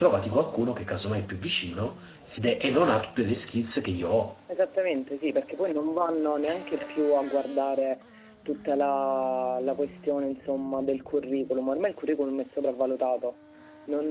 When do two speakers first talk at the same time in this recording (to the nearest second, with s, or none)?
none